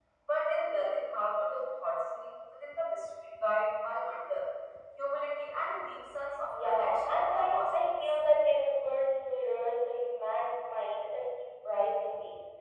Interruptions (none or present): present